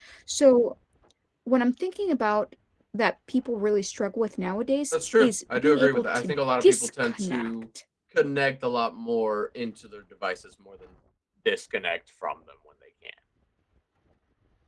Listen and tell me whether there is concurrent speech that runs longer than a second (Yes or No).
Yes